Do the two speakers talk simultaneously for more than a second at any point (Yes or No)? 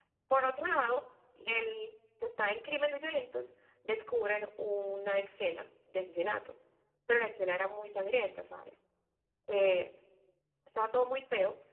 No